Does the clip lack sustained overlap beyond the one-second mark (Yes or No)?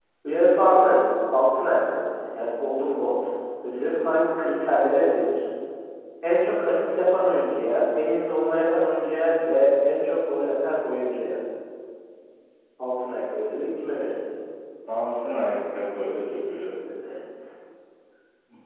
Yes